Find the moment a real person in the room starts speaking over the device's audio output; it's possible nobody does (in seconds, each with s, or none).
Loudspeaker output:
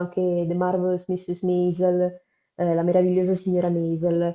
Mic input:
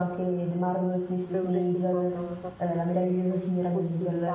1.3 s